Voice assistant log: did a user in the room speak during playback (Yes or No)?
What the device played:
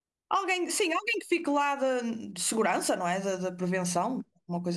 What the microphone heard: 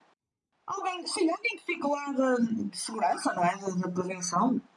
No